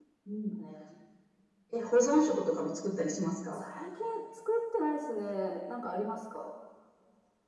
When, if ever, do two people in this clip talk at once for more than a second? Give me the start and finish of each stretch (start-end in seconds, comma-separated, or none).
none